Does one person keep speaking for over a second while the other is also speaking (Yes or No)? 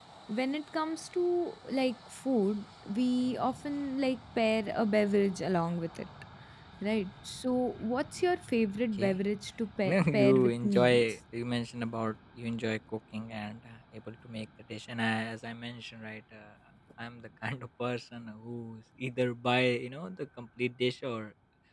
Yes